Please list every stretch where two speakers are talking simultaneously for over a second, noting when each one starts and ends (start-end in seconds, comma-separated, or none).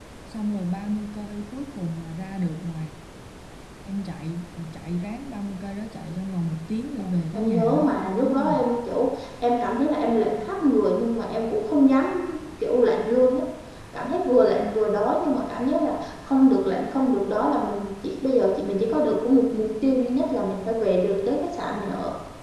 7.3-8.7